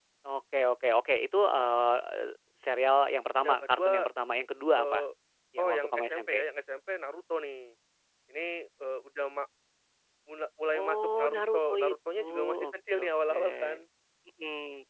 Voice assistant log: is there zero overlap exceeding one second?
No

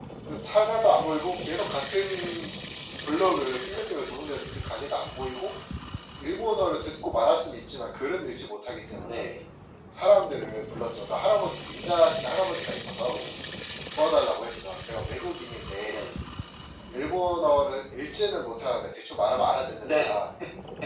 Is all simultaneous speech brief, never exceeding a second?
Yes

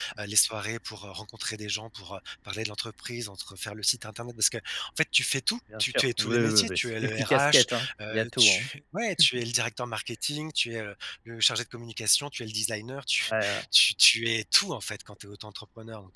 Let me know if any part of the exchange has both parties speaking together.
Yes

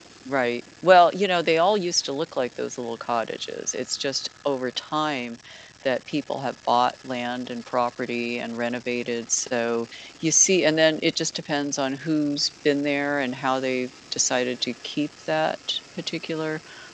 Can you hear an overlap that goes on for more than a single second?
No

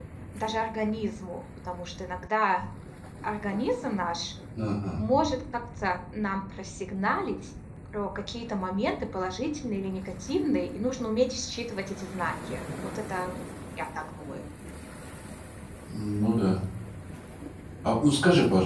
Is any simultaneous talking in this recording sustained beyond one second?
No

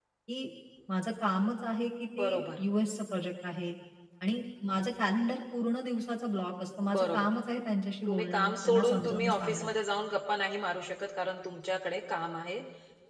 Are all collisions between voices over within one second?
No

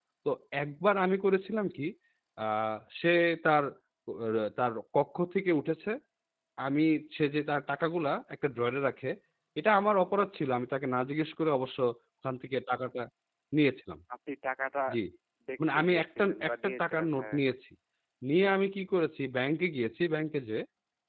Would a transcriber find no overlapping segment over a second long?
No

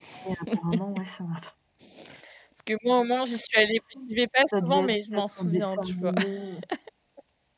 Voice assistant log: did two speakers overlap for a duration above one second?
Yes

